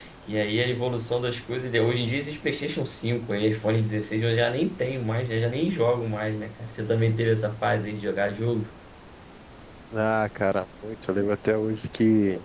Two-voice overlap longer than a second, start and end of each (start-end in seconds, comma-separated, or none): none